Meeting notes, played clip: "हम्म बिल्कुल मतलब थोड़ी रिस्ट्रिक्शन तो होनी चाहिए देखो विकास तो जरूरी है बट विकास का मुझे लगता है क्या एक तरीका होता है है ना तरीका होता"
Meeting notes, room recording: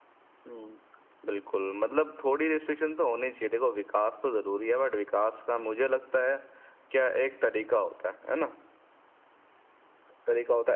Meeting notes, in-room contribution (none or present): none